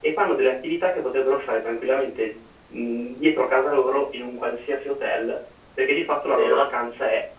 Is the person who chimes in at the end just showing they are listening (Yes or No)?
Yes